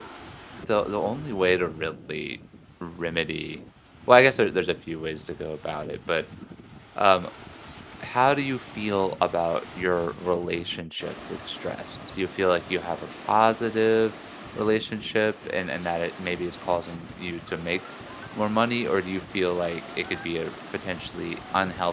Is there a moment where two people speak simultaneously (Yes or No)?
No